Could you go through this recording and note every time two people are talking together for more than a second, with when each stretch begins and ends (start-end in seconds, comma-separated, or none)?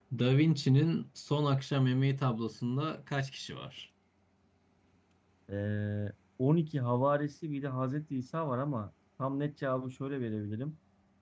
none